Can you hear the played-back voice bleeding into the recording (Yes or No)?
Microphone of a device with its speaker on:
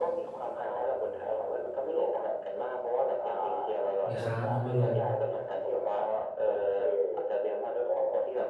Yes